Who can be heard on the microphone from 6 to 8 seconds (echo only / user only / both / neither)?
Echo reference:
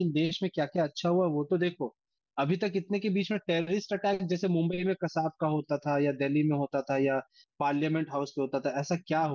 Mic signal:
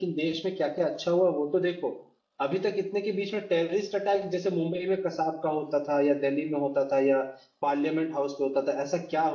echo only